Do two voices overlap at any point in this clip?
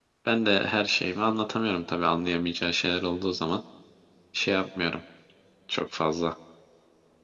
No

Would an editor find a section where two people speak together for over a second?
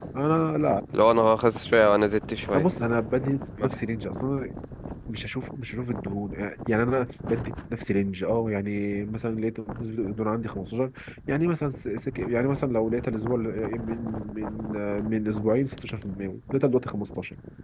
No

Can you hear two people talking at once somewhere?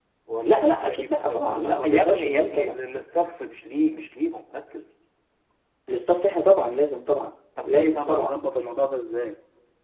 Yes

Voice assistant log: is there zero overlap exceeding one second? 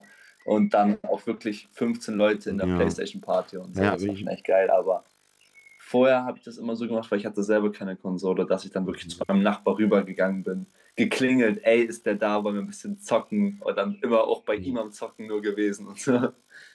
Yes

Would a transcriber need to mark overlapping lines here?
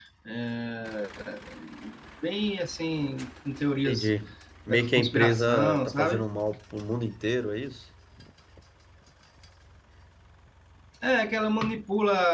Yes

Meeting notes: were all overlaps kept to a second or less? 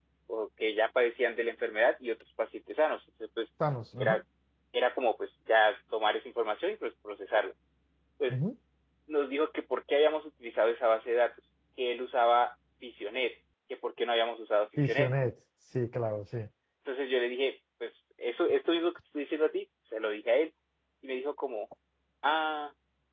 Yes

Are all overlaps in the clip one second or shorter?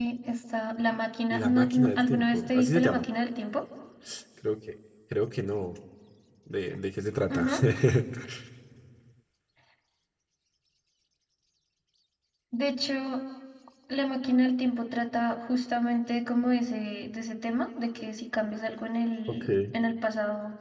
No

